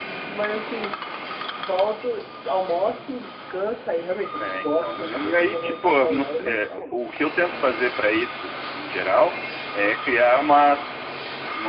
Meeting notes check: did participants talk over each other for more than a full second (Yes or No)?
Yes